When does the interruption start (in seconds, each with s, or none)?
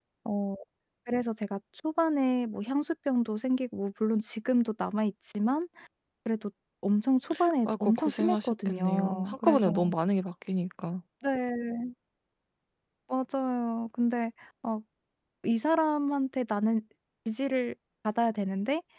7.7 s